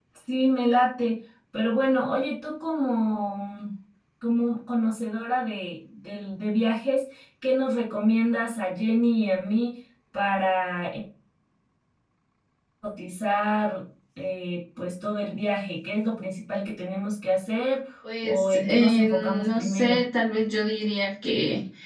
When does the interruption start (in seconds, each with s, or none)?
18.2 s